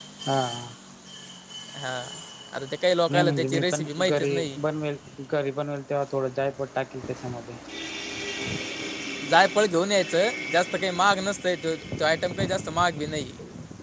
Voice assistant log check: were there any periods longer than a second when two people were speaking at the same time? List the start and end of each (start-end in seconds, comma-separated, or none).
3.1-4.4